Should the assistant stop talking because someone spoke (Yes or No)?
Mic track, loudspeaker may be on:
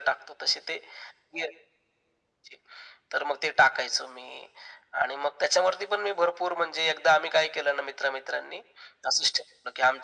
No